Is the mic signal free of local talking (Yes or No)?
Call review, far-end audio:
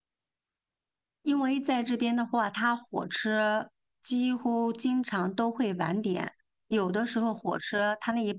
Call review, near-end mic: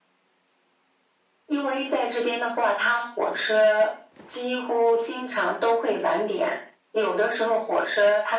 Yes